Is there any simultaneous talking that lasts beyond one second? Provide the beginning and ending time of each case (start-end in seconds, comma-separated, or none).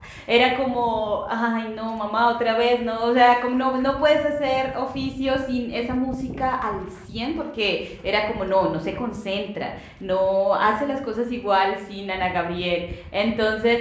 none